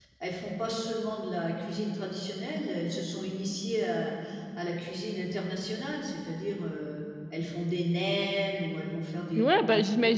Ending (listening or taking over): taking over